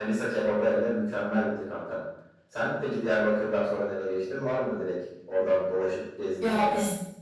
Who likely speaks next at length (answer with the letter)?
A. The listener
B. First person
A